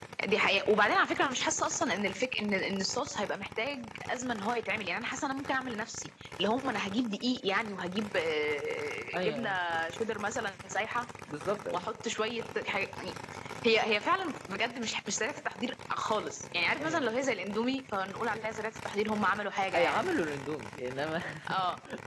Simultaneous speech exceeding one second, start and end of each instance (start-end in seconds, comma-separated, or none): none